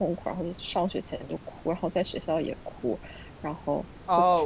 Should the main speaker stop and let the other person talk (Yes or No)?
Yes